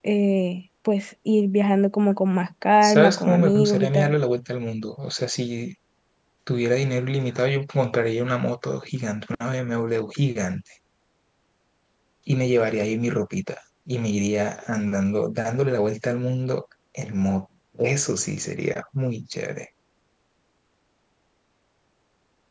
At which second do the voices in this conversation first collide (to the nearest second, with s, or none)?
3 s